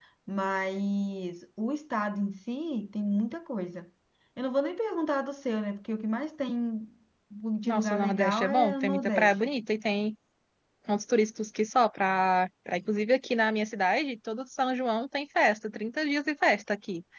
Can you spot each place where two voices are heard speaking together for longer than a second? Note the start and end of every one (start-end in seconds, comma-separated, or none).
7.6-9.3